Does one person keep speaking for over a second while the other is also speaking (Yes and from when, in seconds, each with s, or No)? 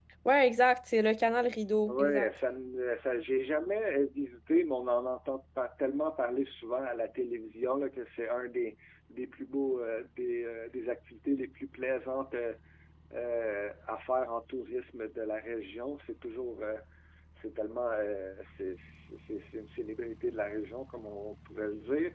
No